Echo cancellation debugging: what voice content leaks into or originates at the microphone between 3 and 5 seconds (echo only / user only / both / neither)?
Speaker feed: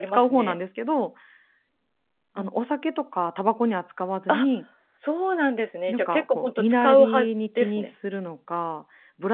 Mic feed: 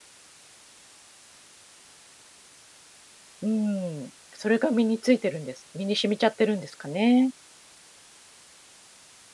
user only